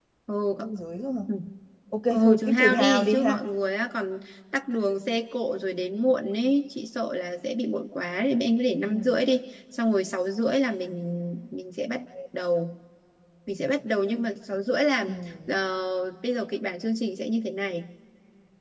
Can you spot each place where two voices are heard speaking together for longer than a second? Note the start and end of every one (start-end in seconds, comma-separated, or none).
2.1-3.4